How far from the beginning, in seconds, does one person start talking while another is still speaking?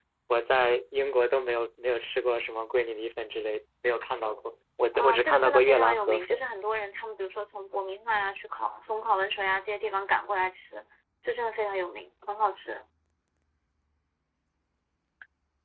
5 s

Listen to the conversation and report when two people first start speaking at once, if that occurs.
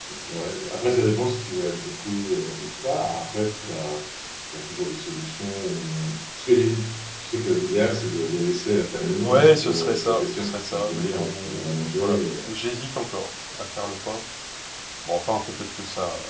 9 s

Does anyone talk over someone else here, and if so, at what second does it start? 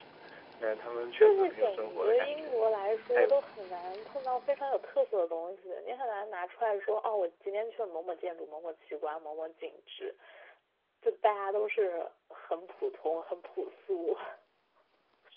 1 s

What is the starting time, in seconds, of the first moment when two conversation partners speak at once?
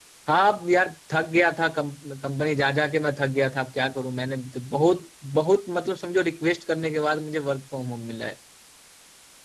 none

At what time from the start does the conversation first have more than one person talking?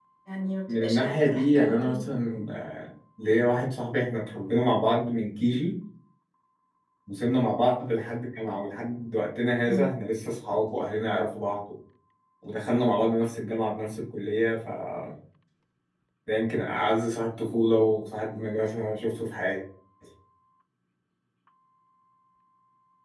1 s

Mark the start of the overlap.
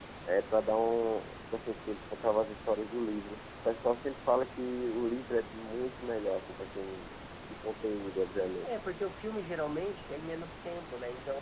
none

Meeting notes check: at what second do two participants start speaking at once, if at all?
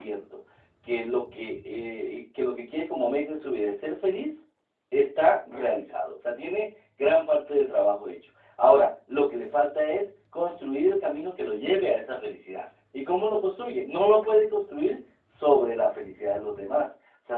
none

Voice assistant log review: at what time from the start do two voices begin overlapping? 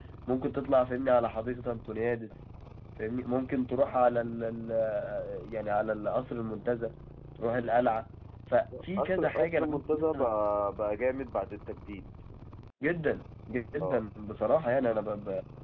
9 s

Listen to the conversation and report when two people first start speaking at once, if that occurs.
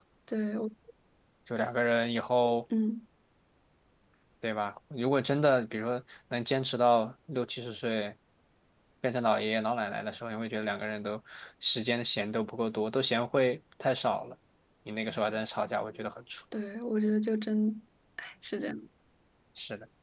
none

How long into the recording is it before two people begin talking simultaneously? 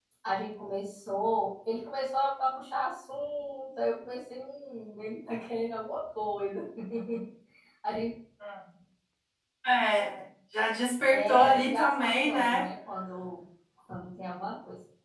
11 s

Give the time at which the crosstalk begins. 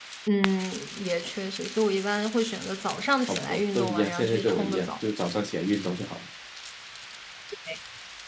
3 s

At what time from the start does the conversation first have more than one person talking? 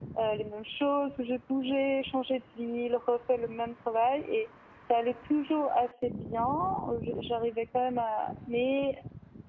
none

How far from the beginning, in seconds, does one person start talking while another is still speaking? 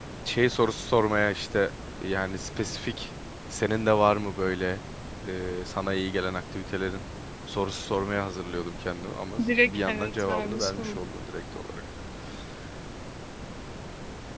10 s

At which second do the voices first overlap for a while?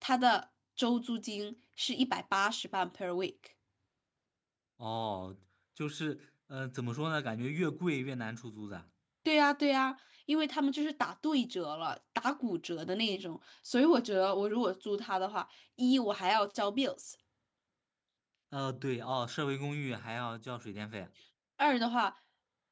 none

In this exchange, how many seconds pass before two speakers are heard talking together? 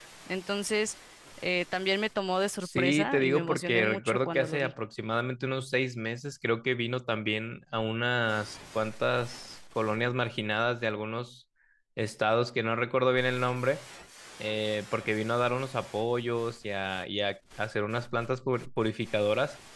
3 s

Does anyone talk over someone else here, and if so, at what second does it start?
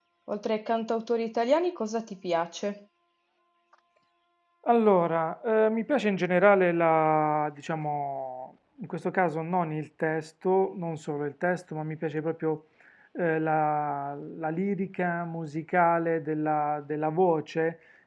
none

